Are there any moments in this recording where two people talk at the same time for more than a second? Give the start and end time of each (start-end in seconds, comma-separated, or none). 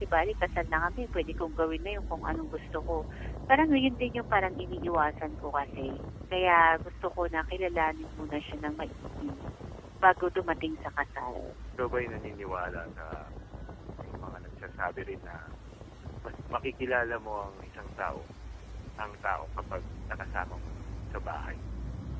none